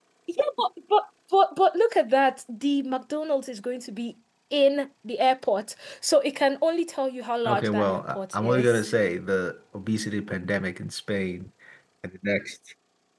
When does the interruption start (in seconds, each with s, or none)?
7.4 s